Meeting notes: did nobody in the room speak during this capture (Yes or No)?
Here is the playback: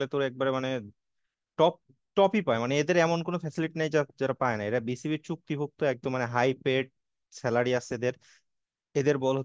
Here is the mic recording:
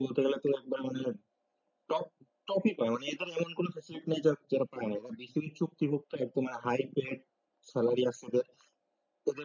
Yes